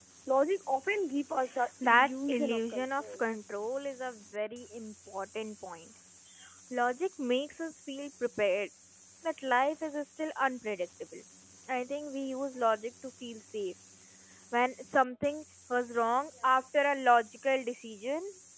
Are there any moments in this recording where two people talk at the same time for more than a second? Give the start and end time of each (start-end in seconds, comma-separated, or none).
1.8-3.2